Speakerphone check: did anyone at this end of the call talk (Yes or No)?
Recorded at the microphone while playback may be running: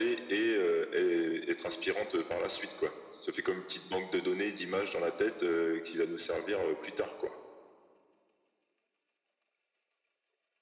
No